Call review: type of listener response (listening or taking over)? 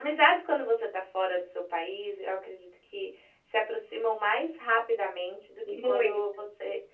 listening